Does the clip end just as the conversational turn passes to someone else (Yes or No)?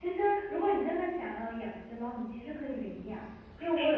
No